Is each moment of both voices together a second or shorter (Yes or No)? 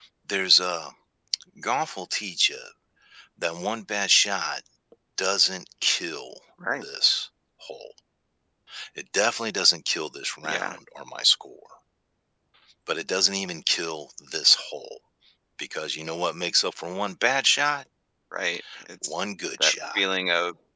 Yes